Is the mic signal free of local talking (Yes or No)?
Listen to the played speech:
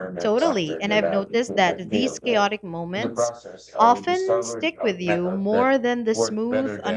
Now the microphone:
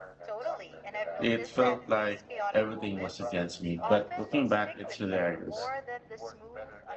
No